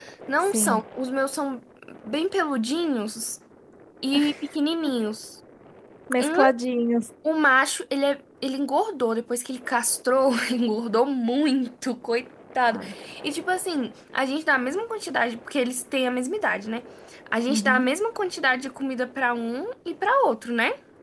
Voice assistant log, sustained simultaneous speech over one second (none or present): none